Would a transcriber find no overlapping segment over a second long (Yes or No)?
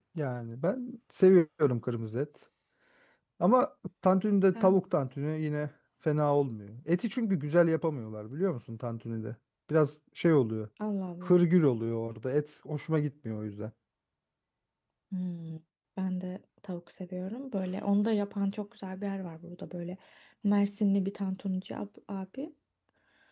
Yes